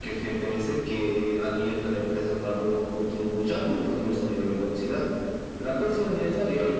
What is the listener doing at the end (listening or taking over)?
listening